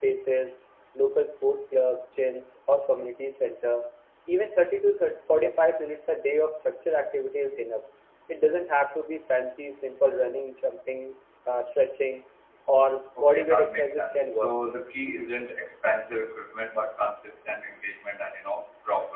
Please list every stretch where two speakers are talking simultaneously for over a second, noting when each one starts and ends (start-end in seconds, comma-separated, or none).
13.2-14.5